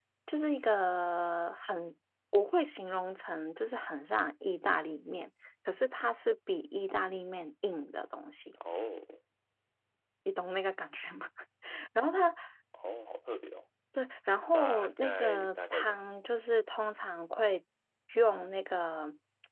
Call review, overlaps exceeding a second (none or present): present